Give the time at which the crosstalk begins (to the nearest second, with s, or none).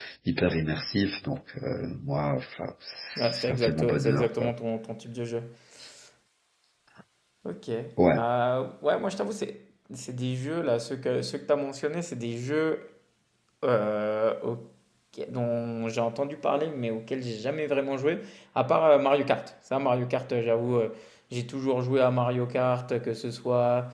3 s